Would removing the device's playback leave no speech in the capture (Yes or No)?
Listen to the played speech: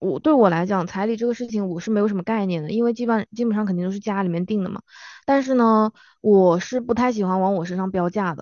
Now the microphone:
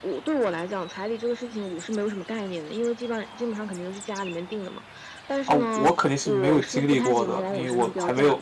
No